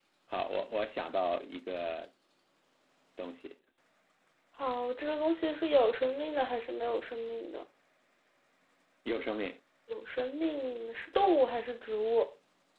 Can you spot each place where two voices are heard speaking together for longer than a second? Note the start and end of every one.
none

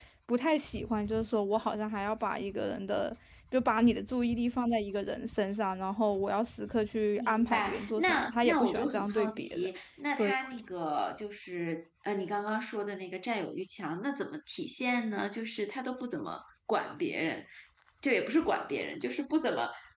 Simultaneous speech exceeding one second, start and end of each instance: 7.2-9.7

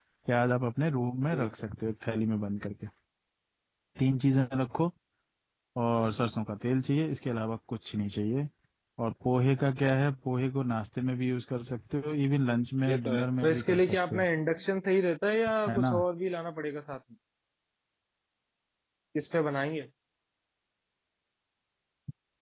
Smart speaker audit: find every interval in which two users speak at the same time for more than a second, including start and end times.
12.9-14.2

